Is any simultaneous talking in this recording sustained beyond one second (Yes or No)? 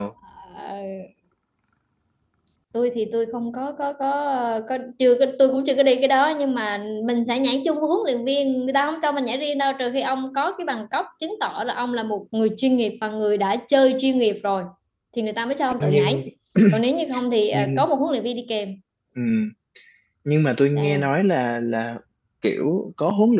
No